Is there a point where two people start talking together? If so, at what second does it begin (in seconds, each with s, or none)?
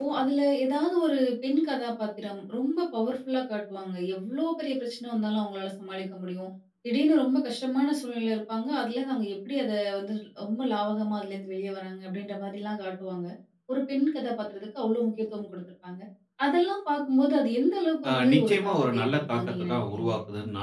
18.0 s